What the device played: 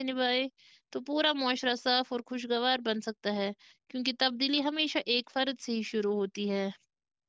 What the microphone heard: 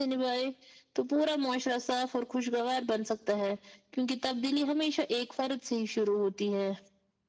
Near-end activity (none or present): none